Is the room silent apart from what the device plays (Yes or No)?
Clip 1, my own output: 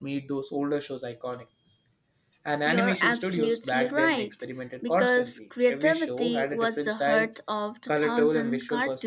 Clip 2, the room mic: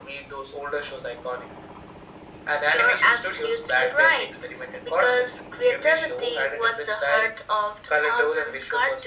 Yes